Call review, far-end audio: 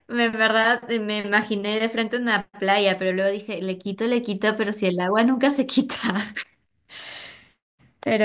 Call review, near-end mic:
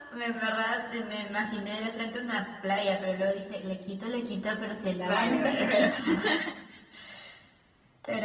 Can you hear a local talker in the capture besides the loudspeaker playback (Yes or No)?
Yes